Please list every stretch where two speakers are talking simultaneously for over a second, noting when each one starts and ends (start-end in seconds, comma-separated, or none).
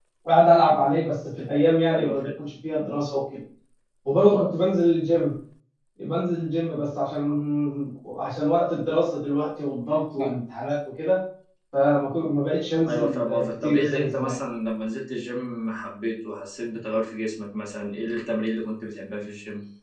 12.9-14.3